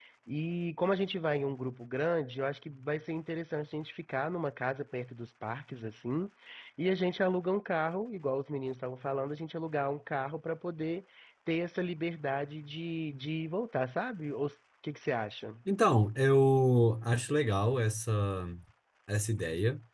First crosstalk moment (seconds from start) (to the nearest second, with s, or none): none